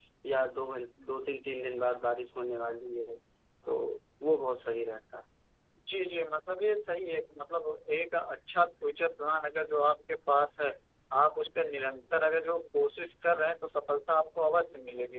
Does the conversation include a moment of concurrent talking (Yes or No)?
No